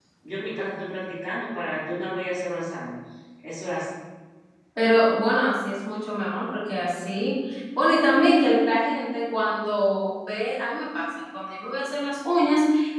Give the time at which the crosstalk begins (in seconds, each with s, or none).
none